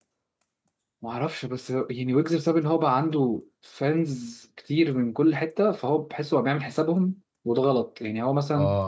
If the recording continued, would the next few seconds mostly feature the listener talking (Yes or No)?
No